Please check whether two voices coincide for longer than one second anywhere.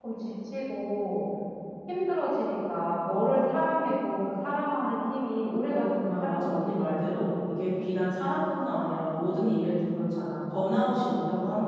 Yes, from 5.7 s

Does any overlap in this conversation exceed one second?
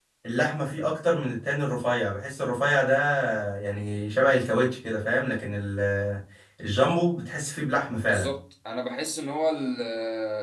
No

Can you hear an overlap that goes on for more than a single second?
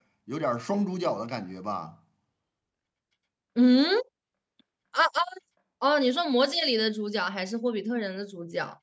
No

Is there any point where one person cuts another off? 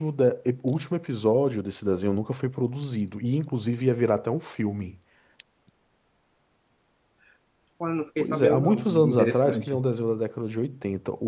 Yes, from 8.2 s

